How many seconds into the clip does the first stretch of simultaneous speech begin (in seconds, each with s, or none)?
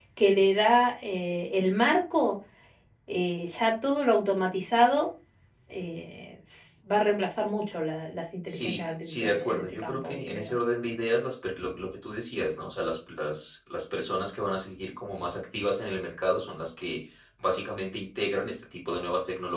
8.5 s